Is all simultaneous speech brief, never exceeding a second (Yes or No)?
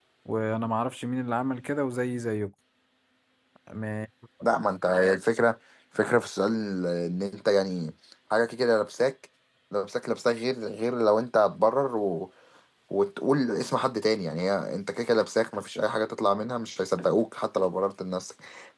Yes